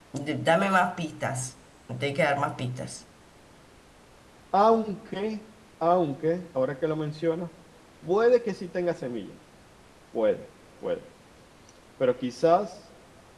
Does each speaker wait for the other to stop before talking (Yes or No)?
Yes